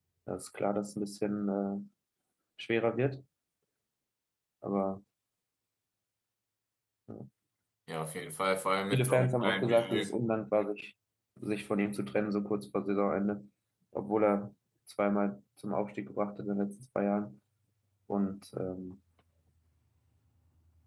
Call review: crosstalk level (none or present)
present